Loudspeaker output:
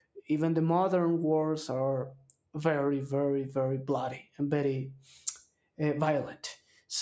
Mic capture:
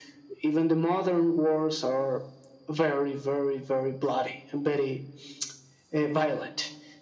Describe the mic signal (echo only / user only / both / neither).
echo only